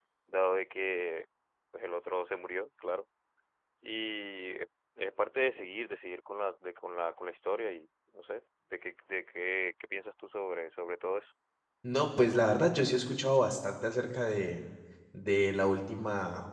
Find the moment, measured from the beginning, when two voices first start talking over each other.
none

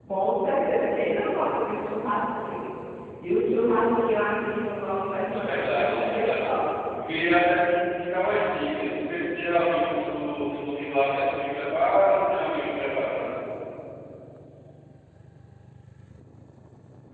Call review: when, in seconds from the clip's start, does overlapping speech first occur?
4.9 s

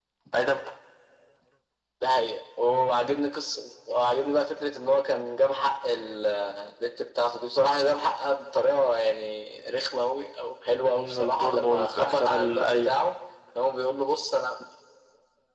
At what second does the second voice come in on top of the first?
10.9 s

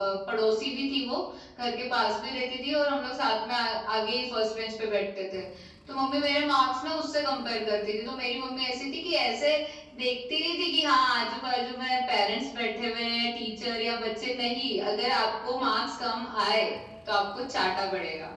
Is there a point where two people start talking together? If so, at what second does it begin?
none

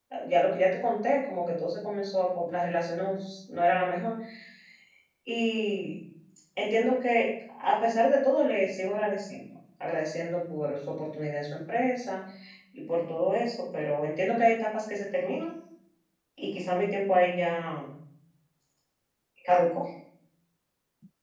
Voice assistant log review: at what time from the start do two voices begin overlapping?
none

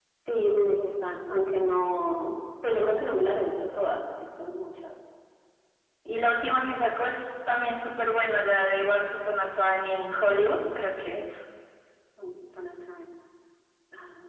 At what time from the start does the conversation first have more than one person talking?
none

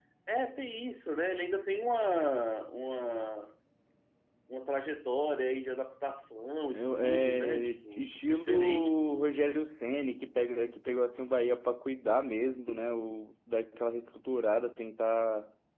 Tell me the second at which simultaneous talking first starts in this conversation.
6.7 s

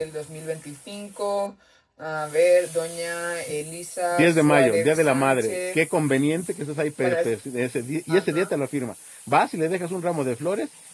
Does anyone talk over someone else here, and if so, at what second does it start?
4.1 s

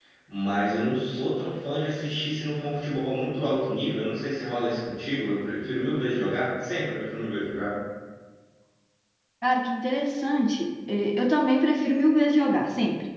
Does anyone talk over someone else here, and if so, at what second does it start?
none

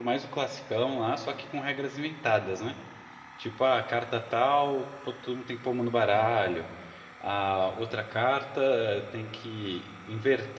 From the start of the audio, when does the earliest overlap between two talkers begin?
none

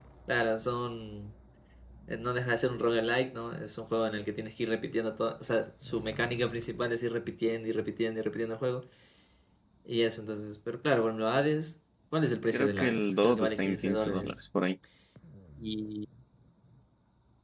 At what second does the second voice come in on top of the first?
12.5 s

